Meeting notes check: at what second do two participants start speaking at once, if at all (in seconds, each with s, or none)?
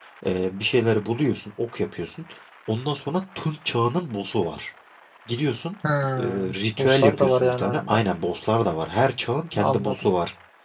6.2 s